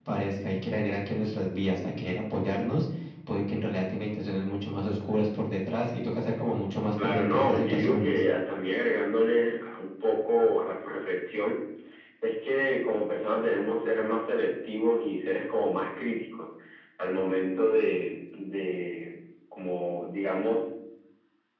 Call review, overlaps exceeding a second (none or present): present